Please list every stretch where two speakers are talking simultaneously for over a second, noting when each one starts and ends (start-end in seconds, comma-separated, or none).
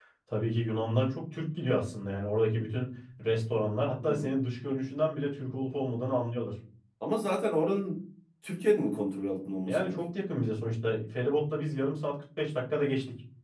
none